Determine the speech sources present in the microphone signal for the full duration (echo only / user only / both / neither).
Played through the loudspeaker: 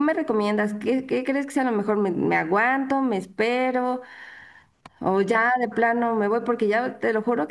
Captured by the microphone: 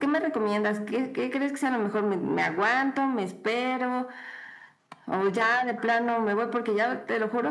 echo only